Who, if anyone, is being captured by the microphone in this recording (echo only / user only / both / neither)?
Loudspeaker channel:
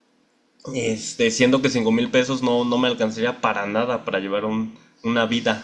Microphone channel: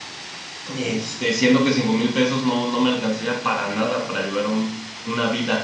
echo only